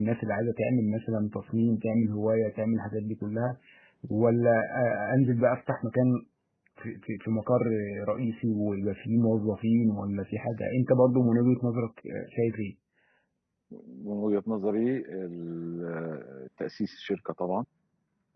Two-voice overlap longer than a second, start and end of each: none

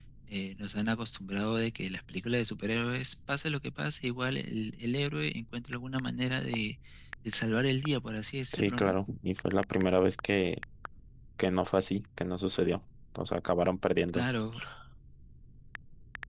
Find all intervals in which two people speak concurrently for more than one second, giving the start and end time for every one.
none

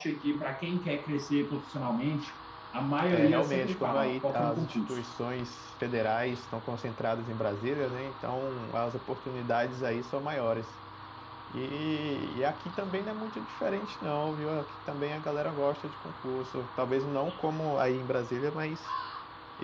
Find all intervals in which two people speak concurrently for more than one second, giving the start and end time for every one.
3.1-5.0

